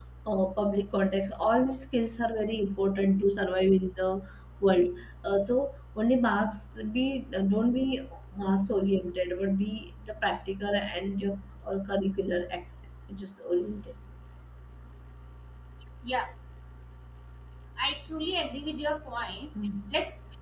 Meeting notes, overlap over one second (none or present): none